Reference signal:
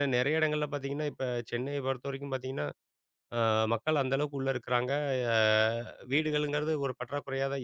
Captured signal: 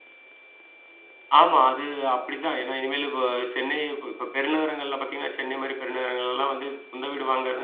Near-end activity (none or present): present